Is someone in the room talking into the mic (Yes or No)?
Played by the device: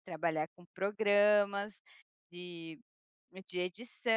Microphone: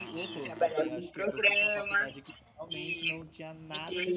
Yes